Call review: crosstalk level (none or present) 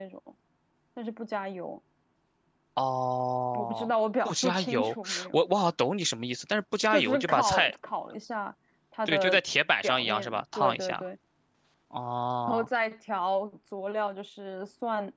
present